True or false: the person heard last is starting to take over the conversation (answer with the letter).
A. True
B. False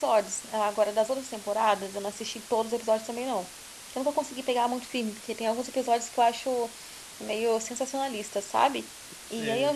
B